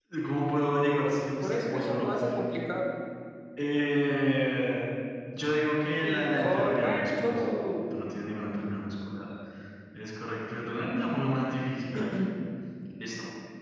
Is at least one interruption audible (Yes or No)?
Yes